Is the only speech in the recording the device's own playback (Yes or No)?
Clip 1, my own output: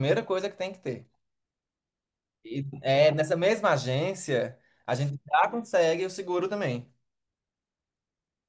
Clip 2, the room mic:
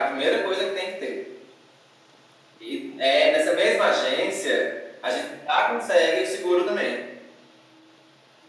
Yes